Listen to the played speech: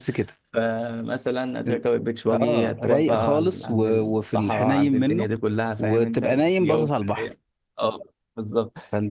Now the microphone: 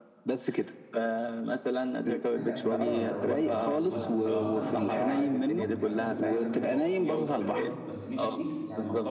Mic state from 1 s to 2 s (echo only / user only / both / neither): echo only